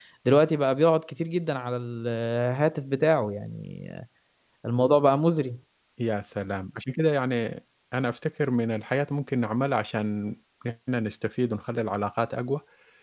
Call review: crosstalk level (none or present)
none